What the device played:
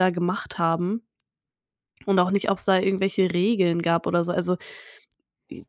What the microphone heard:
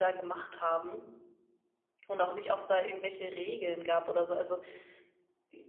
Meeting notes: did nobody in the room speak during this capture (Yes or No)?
Yes